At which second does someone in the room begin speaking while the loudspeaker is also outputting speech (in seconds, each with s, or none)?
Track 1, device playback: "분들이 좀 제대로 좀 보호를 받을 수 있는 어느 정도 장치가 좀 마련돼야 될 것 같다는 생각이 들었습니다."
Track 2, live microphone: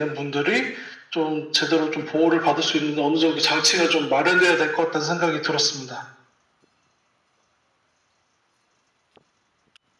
none